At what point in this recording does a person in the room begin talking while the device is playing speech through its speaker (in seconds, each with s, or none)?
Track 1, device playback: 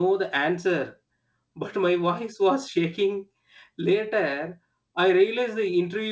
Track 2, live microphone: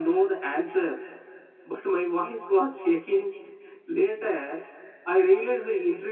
none